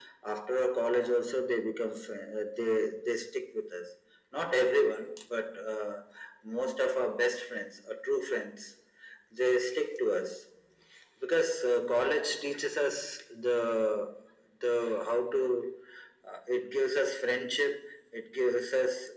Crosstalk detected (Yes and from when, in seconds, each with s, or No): No